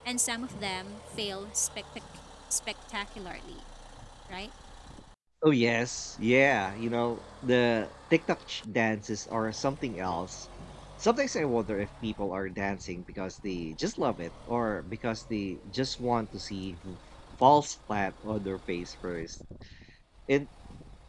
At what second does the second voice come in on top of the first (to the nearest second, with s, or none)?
none